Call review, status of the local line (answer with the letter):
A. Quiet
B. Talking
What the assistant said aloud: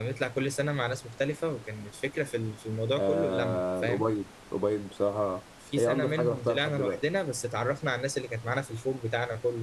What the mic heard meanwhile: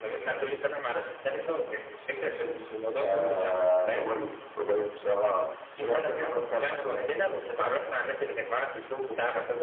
A